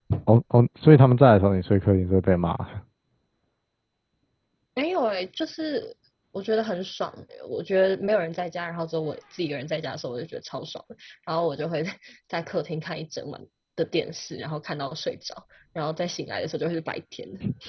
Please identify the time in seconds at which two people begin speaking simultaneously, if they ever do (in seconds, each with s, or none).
none